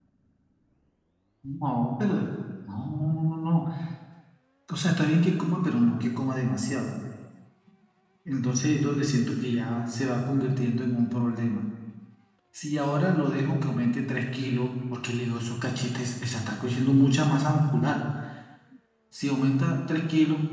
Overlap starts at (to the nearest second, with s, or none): none